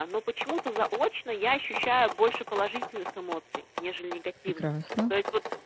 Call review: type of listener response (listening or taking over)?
listening